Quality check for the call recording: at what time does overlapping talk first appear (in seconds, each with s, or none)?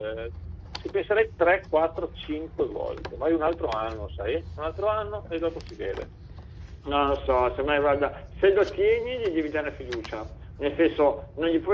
none